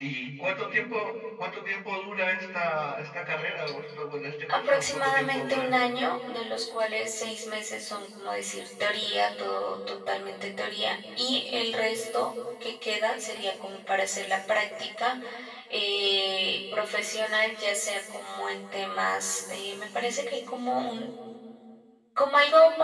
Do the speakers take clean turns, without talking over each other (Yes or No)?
No